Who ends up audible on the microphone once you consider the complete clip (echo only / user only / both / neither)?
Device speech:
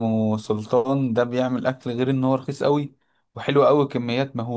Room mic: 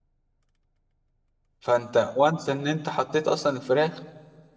user only